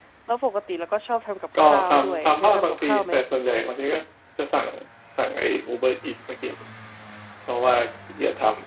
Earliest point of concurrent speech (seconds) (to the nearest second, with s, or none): 2 s